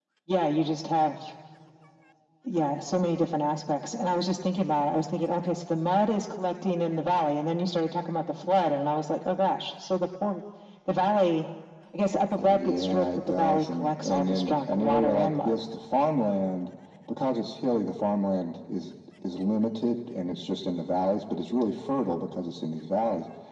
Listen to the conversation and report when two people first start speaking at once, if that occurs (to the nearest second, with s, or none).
12 s